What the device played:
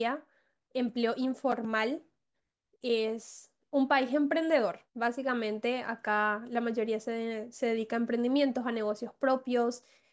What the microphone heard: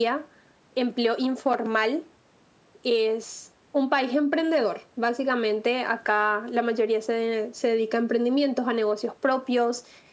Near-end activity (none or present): none